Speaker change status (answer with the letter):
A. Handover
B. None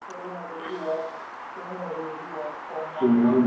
A